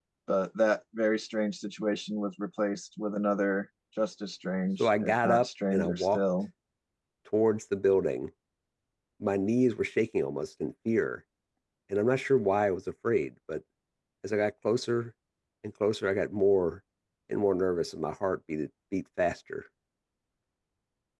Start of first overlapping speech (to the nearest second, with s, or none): 5 s